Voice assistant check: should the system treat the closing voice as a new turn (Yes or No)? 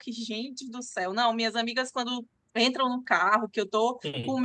No